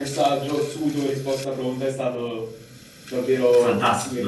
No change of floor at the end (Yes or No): No